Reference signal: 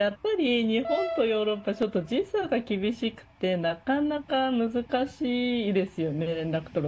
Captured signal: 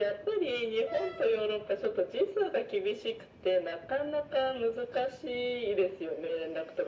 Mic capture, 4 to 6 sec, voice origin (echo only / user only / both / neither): echo only